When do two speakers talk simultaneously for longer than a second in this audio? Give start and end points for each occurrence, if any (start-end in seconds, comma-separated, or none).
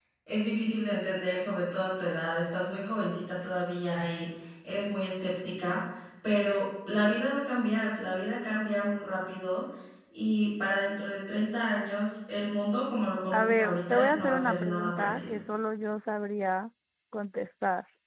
13.3-15.4